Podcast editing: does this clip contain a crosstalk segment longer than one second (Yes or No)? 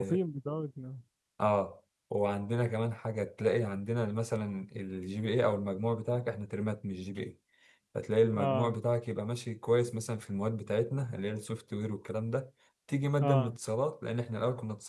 No